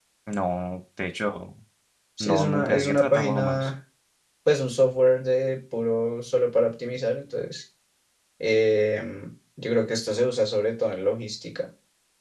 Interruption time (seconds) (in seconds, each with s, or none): 2.2 s